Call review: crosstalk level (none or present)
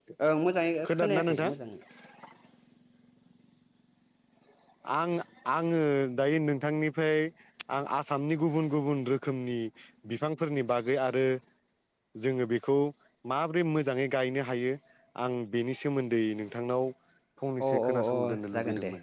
present